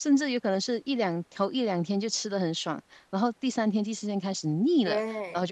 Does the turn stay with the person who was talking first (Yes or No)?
No